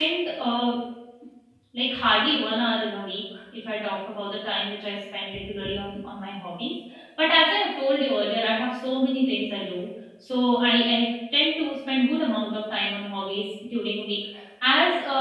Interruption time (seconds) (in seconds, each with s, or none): none